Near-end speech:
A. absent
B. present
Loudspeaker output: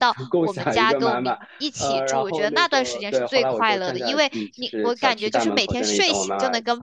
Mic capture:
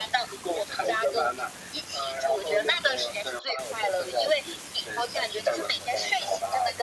A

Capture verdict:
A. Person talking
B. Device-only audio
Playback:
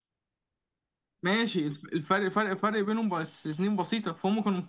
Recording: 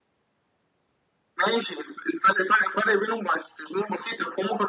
B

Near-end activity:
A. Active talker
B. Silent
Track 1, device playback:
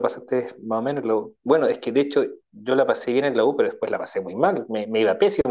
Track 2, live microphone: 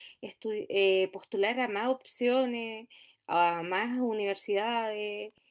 A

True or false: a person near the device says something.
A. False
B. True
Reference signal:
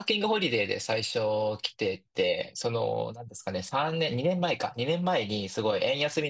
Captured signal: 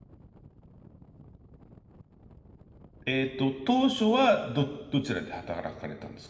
B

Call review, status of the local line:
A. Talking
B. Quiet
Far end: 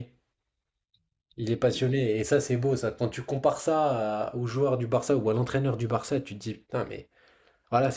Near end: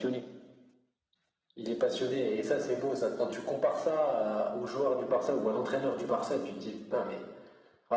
B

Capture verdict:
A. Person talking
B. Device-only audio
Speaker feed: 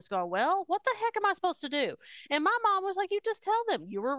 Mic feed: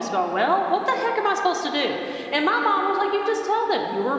B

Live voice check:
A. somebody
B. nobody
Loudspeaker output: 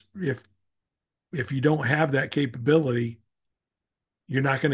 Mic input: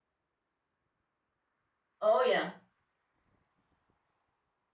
A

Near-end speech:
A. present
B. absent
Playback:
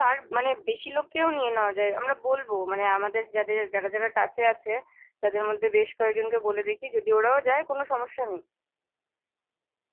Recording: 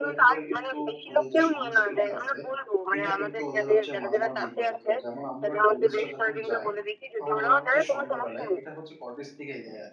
A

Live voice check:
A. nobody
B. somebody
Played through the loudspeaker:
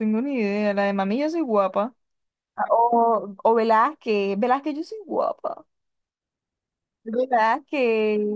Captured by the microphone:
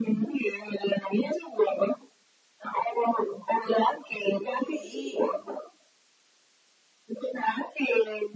B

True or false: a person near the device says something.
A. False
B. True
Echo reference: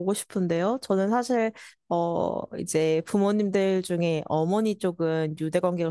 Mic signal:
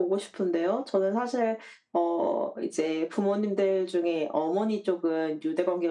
A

